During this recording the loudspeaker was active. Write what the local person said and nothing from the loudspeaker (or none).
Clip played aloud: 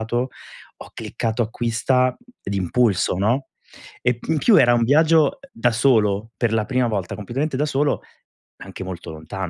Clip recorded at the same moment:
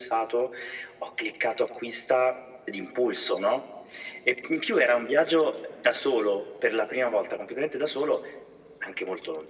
none